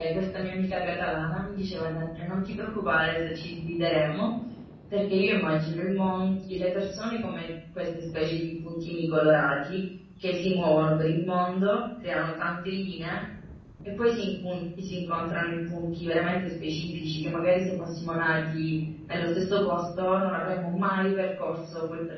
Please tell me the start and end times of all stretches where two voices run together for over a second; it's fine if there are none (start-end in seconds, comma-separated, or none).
none